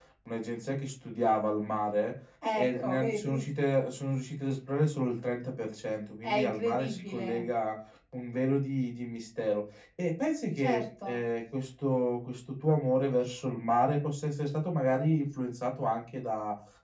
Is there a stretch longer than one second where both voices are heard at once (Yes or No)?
Yes